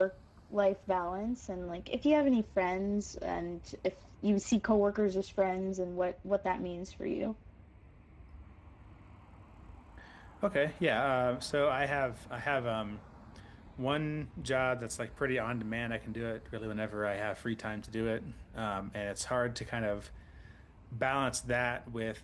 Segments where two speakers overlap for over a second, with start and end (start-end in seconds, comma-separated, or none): none